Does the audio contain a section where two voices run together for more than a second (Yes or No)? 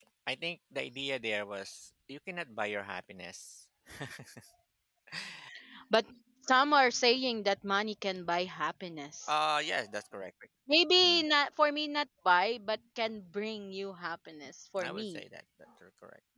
No